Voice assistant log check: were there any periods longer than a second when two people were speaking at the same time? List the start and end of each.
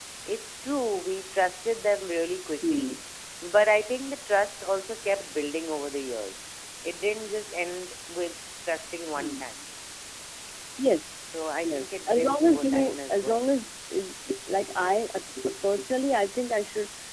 11.6-13.5

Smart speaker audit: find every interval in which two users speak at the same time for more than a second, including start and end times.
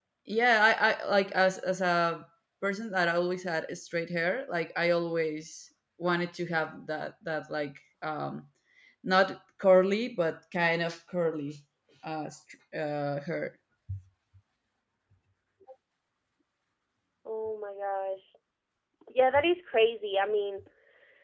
none

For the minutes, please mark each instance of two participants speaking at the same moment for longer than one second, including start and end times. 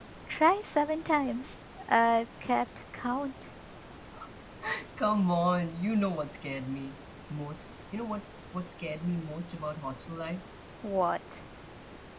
none

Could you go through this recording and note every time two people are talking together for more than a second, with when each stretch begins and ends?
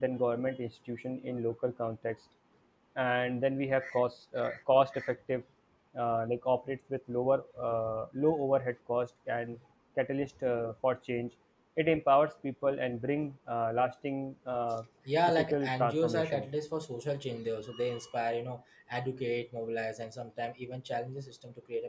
15.3-16.5

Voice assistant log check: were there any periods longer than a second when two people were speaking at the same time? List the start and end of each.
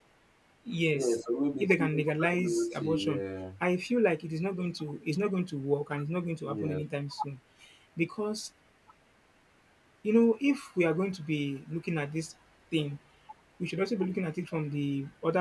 1.6-3.2

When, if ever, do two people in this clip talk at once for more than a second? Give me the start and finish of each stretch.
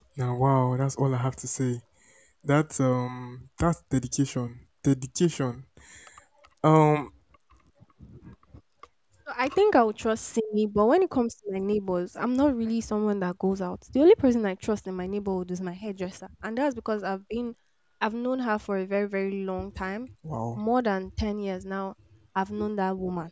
none

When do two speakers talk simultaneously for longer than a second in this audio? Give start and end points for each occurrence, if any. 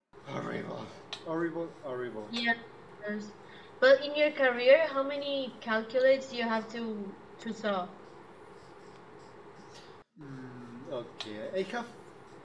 none

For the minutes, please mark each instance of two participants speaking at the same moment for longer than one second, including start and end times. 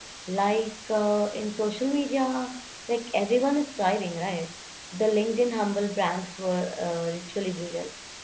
none

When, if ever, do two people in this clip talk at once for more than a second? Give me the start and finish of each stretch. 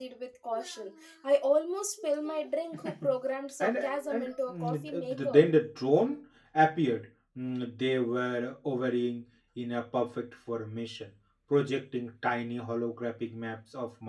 4.1-5.5

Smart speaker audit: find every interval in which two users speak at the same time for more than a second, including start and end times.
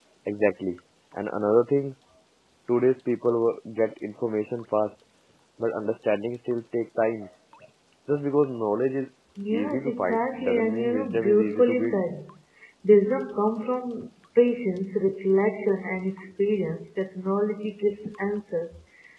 9.5-12.0

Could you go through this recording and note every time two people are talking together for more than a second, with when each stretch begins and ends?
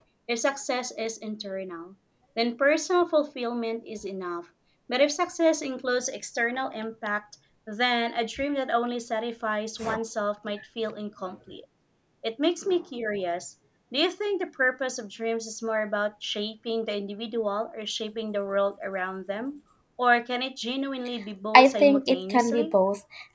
21.5-22.7

